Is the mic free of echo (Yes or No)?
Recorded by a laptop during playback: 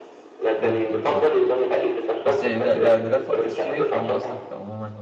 No